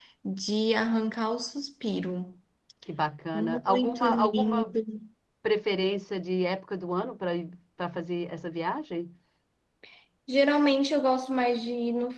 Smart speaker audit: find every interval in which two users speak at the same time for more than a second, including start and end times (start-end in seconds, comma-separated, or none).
3.3-4.8